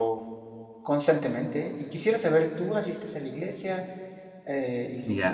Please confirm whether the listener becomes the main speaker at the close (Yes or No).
Yes